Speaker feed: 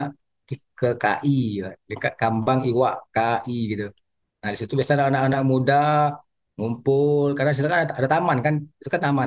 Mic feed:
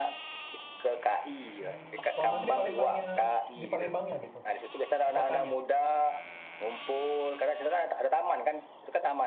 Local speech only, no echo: Hmm. Kalau Mas di Palembangnya di Palembangnya gitu, di kotanya.

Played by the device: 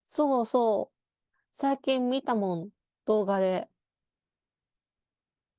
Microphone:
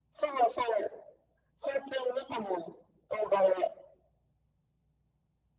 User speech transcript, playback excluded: none

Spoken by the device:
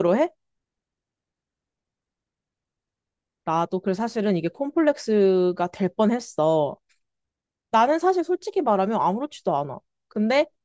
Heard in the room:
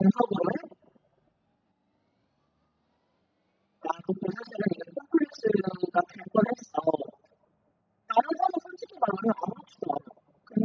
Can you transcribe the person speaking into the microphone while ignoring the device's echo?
none

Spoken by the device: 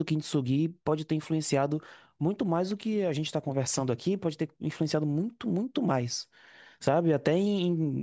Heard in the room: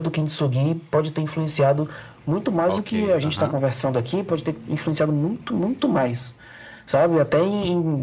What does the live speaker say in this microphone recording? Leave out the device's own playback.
Ok, aham.

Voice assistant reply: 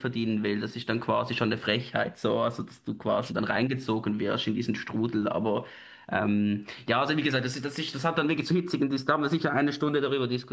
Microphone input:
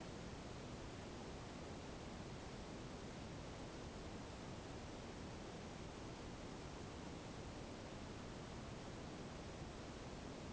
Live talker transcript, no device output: none

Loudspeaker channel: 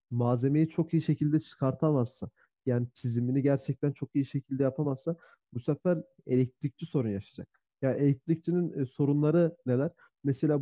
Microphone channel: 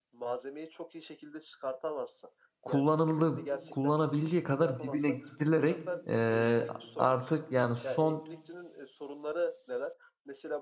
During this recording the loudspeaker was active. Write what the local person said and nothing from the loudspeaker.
kullanıldığı, kullanabildiği kadar dibine gidilerek e, artık yani son

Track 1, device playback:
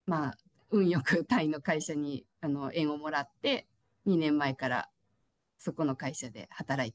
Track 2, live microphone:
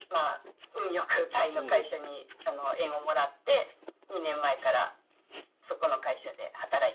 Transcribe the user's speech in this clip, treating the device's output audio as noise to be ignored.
そうです

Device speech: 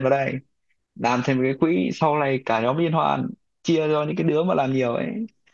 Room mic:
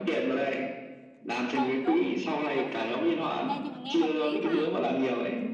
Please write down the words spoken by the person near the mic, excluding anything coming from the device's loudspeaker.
ờ đúng đúng ê nhưng mà nghe hợp lý quá à

